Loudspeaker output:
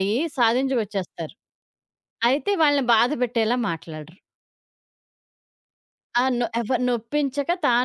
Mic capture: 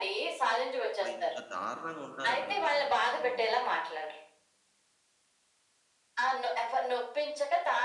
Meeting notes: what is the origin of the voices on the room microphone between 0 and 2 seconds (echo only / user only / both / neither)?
both